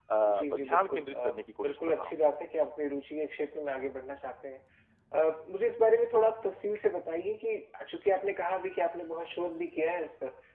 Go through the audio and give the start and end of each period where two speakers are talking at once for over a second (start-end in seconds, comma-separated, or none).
0.5-2.2